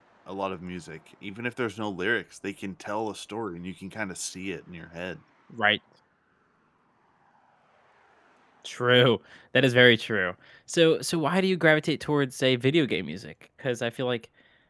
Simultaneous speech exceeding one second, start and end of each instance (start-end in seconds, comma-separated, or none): none